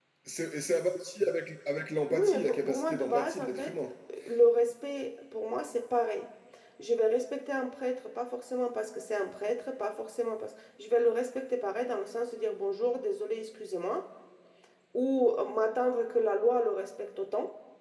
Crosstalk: present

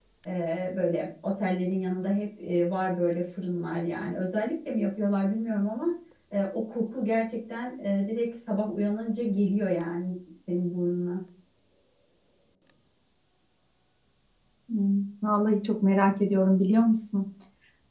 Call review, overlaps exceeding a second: none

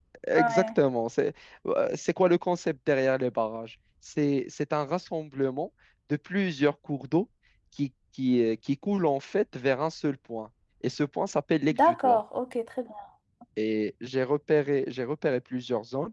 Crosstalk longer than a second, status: none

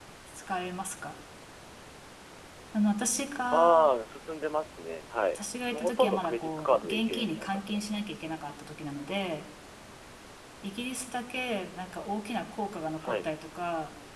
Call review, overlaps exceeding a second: present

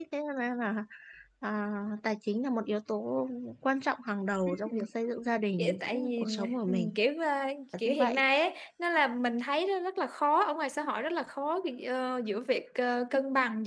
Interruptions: present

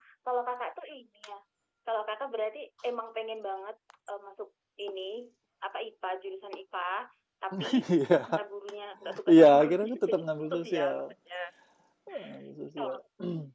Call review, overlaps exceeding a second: present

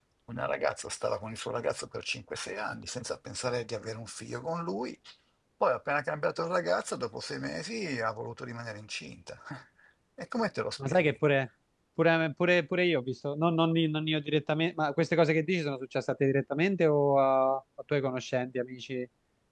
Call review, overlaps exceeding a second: none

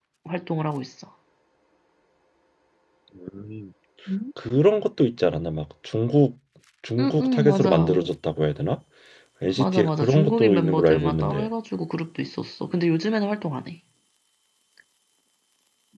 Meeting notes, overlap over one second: present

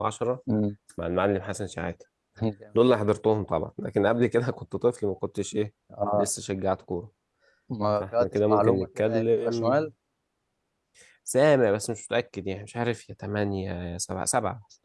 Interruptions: present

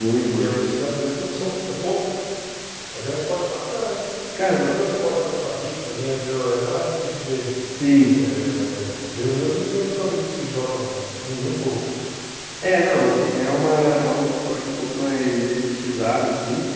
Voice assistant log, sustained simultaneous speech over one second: none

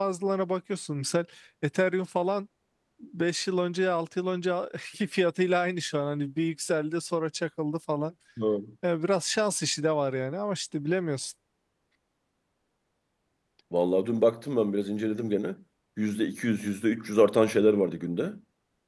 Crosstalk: none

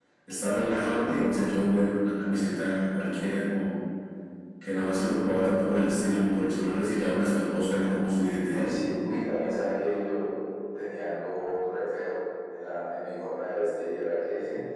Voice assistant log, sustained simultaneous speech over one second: none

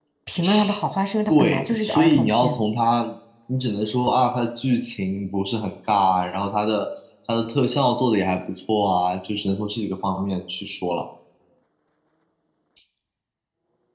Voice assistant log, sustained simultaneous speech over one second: present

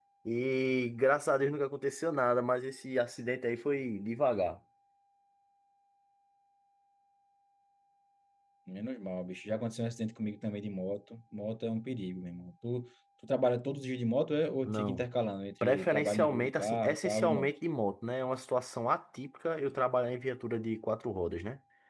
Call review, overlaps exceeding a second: present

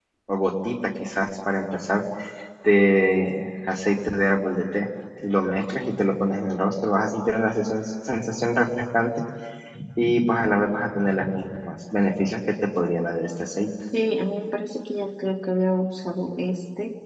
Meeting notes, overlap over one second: none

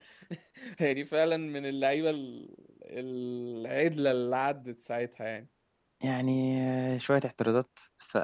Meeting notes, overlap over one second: none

